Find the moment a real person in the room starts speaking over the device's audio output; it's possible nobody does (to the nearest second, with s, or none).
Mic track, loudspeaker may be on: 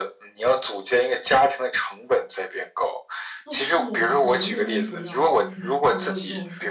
3 s